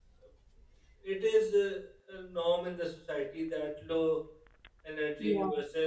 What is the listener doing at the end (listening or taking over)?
listening